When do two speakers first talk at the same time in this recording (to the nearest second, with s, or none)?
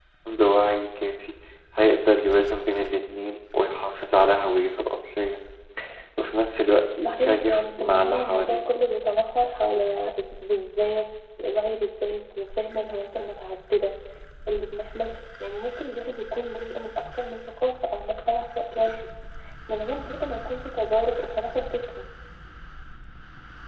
7 s